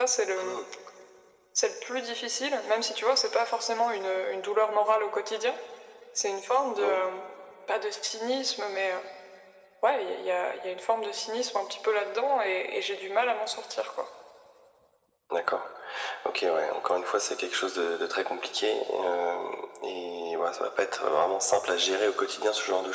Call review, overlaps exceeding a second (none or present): none